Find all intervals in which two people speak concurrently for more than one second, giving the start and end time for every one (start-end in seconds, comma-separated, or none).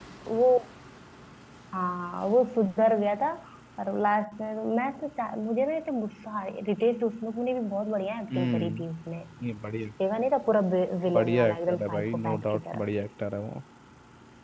11.1-12.8